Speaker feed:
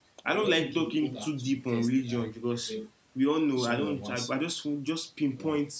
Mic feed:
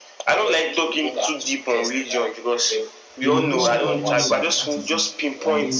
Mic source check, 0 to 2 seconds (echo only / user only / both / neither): echo only